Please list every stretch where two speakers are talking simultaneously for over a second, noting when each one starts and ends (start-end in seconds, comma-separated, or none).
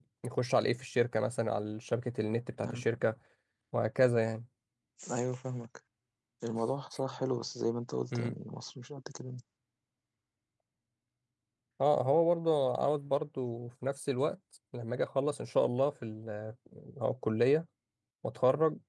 none